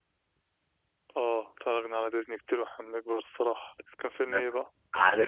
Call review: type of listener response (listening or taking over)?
taking over